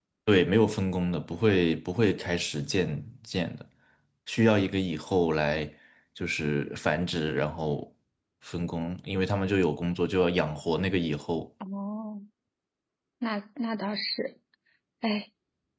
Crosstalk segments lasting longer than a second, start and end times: none

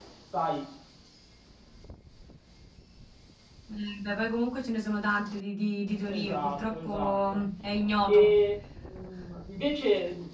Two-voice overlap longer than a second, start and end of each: 6.1-7.4

